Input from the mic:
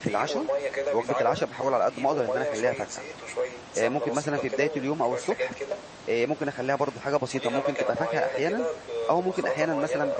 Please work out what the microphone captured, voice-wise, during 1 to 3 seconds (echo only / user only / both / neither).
both